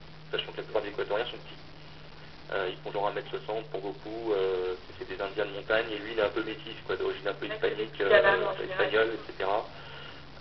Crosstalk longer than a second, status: present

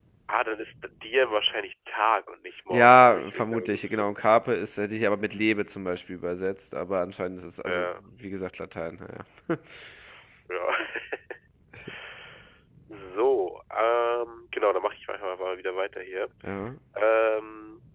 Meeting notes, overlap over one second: present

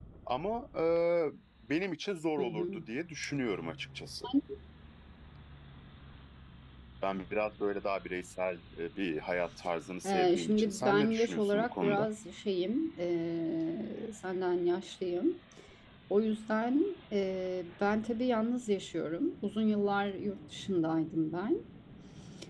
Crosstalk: present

